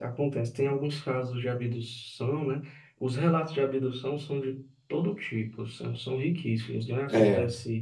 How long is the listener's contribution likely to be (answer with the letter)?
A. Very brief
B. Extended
A